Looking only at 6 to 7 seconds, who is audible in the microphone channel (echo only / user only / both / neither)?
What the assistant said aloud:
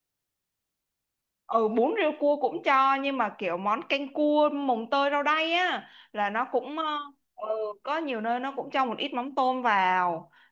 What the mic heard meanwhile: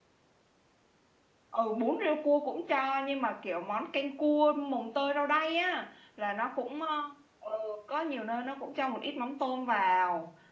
echo only